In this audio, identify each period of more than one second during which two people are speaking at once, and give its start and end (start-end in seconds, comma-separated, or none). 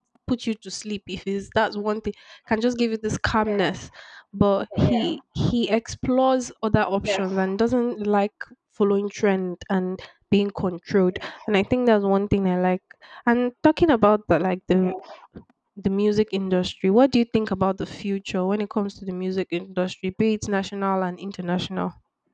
none